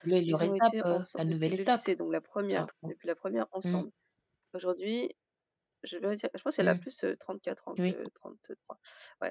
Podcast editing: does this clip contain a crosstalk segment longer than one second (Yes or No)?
Yes